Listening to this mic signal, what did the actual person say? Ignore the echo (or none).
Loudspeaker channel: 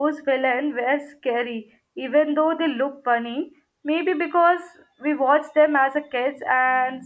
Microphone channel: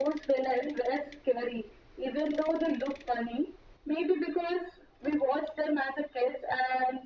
none